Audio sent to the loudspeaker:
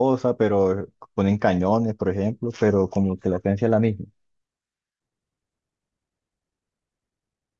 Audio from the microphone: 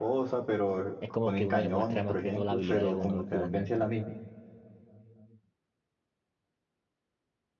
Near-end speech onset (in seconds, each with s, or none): 1.0 s